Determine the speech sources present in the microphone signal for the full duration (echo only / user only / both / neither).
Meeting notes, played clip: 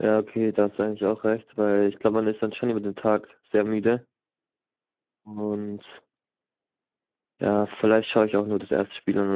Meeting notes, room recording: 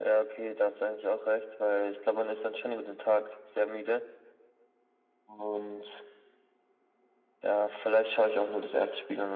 echo only